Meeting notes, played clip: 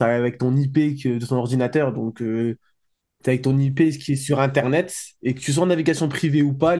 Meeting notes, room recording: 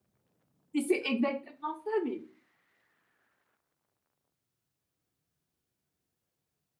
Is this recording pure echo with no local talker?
No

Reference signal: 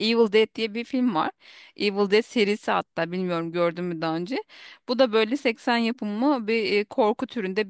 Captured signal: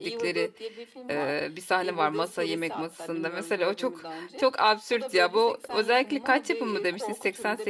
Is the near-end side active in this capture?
Yes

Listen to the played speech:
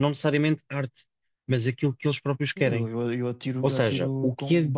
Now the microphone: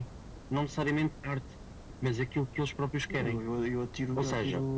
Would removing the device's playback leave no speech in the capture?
Yes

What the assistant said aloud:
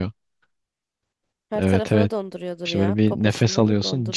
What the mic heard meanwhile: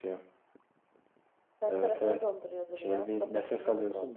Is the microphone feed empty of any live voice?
Yes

